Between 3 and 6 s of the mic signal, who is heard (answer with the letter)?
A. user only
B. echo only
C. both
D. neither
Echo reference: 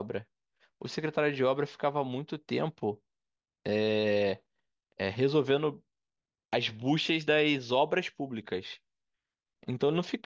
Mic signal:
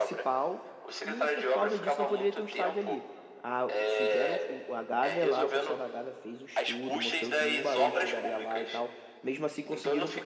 C